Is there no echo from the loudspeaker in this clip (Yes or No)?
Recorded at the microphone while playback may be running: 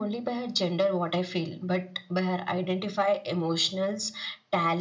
No